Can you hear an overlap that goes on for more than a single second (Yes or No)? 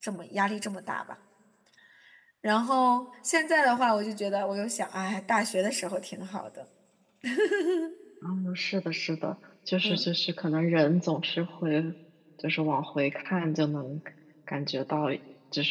No